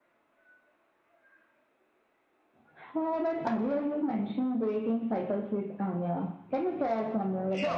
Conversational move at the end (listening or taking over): taking over